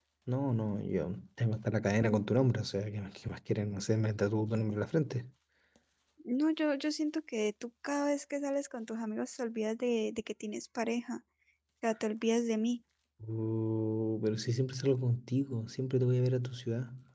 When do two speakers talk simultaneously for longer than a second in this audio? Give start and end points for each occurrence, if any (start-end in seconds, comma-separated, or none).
none